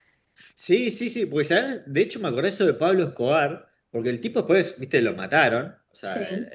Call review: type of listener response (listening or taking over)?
listening